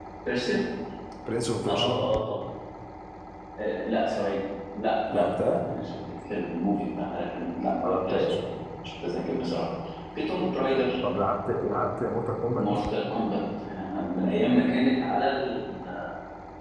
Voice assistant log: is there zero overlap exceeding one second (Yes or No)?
Yes